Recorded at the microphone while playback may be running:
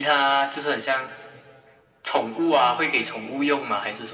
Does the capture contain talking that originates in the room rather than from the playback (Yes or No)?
No